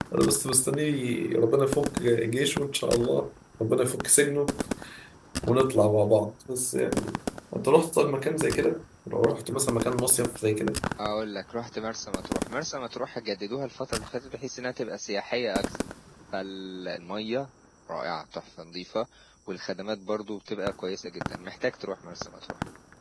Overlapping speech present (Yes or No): No